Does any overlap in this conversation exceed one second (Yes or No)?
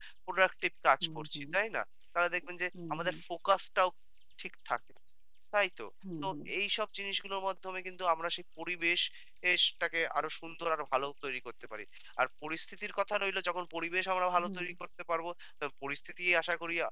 No